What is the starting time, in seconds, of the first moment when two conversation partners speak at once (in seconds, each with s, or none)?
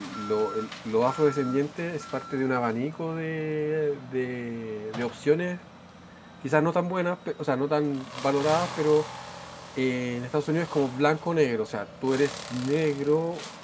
none